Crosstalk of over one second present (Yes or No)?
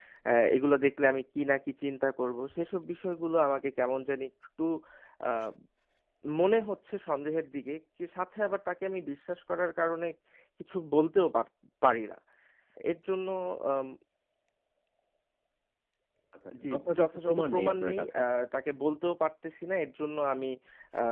Yes